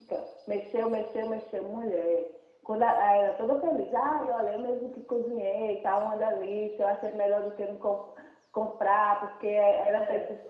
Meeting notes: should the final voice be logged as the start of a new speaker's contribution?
No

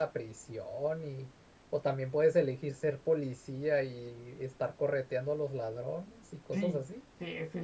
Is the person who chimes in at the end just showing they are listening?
No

